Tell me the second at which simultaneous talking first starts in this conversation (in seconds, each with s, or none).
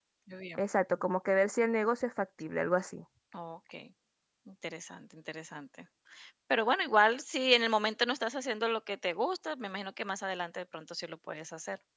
none